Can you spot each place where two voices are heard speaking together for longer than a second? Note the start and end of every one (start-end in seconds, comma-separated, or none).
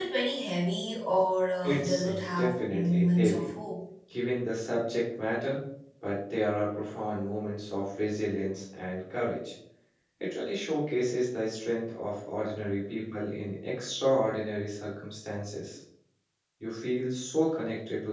1.6-3.5